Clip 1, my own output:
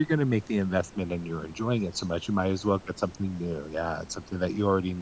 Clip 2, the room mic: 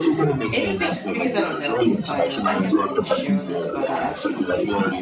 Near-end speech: present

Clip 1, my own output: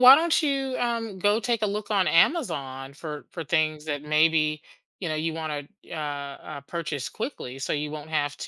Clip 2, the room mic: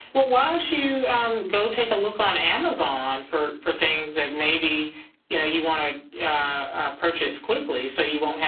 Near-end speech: none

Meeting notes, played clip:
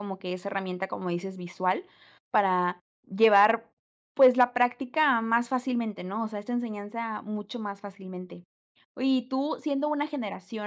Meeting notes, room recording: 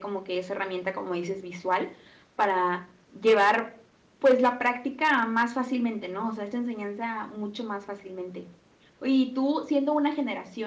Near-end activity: none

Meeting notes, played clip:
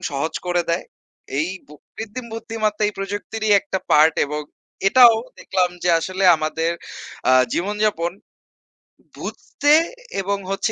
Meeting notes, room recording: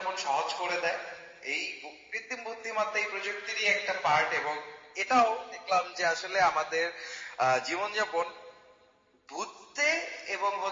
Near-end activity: none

